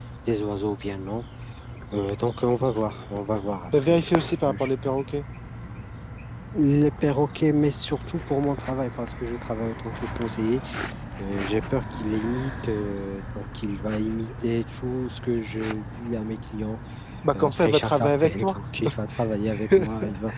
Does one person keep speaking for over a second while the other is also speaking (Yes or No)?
Yes